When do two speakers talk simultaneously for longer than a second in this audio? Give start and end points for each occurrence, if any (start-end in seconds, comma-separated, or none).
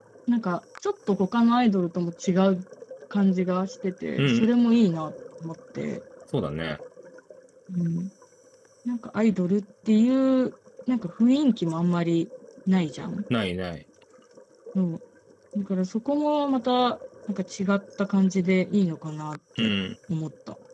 none